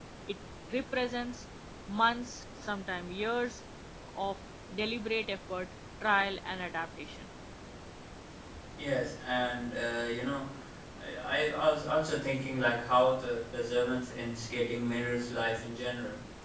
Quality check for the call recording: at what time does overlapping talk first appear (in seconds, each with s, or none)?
none